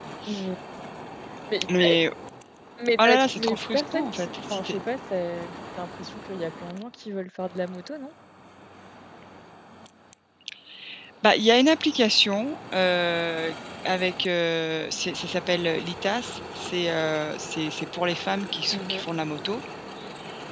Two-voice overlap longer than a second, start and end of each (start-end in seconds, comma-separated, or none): 3.0-4.8